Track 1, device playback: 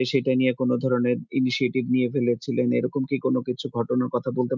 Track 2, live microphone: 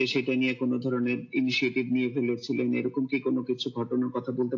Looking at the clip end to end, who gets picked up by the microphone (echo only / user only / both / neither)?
echo only